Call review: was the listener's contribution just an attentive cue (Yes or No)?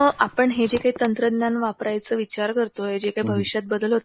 Yes